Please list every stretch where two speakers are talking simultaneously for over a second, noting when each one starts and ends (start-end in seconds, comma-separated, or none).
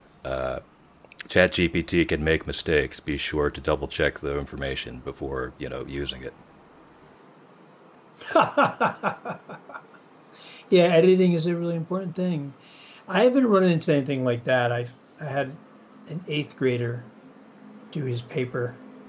none